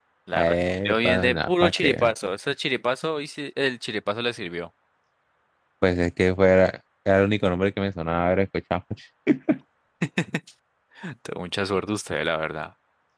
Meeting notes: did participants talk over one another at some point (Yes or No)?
Yes